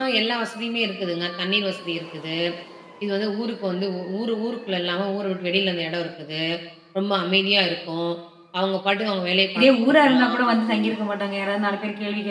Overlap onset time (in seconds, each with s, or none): 9.5 s